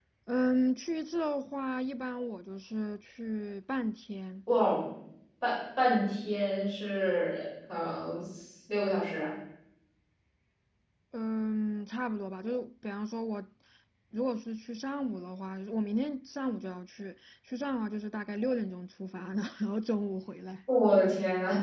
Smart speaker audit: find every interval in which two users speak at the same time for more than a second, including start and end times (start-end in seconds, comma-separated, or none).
none